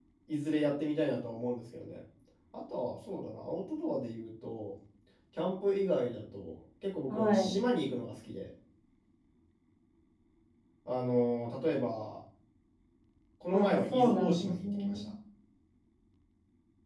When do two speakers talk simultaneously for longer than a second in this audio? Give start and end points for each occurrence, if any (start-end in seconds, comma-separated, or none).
13.5-15.0